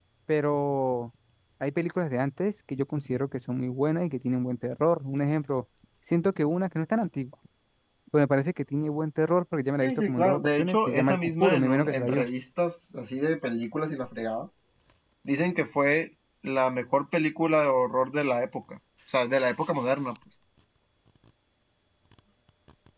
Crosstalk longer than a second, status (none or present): present